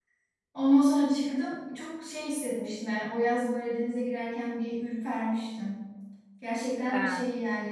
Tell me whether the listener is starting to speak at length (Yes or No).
No